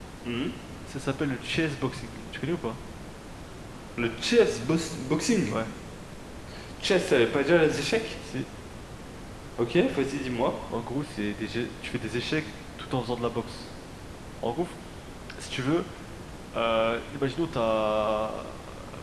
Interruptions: none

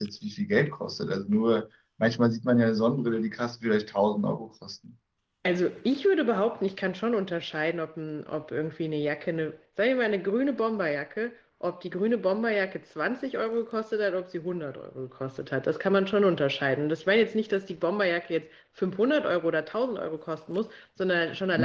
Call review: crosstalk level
none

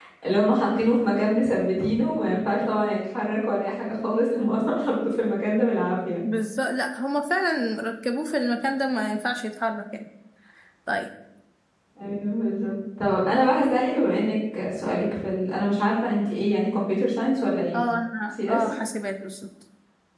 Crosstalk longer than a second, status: none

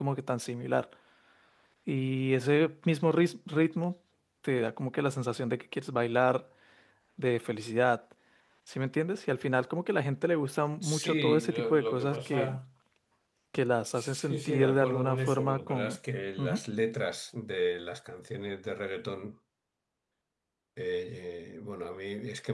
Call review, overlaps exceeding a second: present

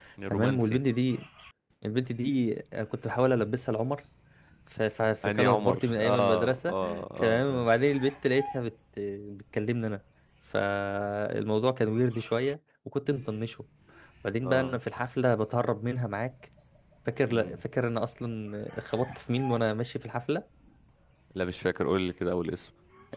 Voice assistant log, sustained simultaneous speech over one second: present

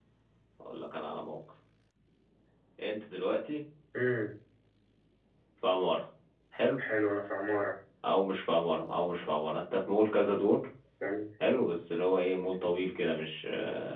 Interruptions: none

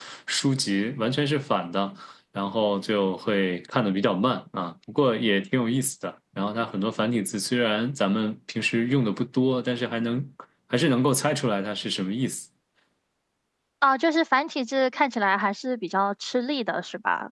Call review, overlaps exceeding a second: none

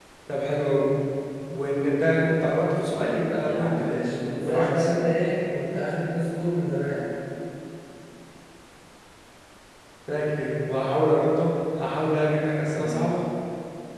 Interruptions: present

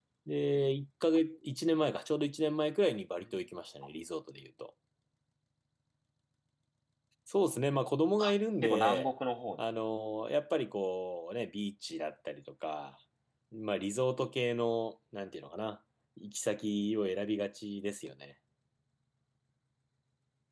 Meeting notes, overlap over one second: none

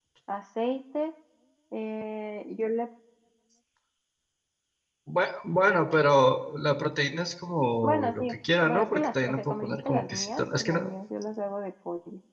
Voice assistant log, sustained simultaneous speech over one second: present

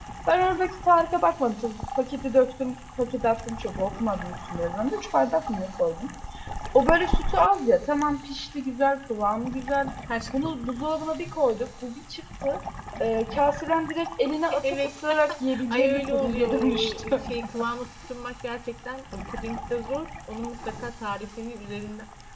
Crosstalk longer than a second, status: present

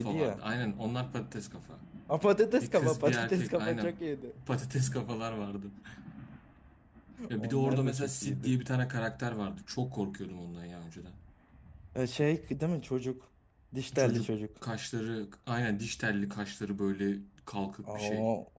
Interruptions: present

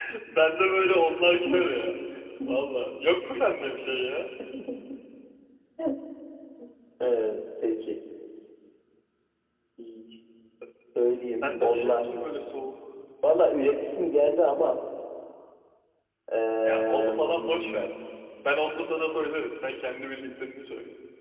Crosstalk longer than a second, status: present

